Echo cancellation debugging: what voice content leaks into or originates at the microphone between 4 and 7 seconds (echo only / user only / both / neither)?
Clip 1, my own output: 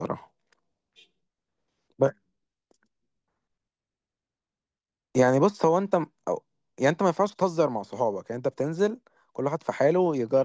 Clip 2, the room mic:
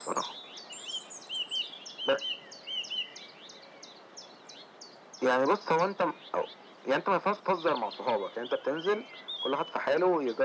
echo only